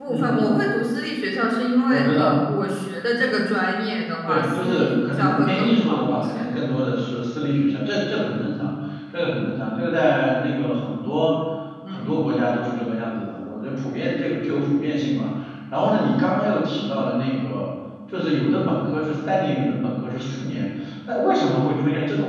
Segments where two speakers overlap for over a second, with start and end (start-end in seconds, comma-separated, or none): 4.3-6.5